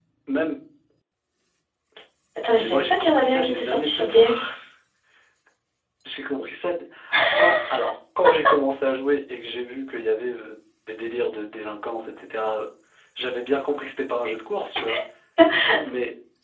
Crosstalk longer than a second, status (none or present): present